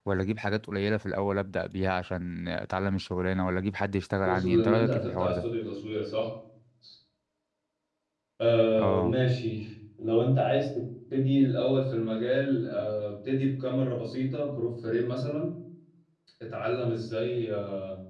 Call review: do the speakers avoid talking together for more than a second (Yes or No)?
No